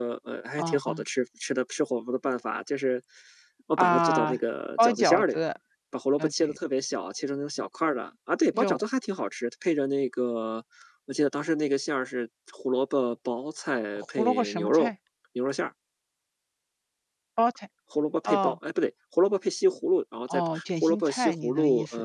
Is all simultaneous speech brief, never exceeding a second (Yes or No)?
No